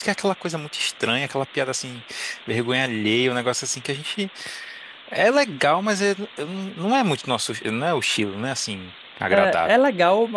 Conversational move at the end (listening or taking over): taking over